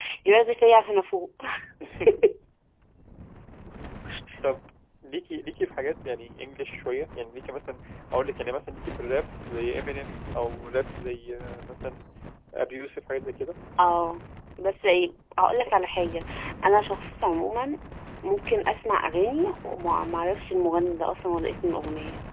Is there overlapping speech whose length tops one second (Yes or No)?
No